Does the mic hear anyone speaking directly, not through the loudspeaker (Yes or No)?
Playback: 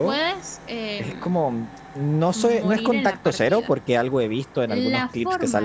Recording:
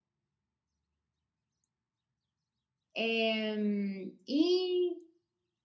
Yes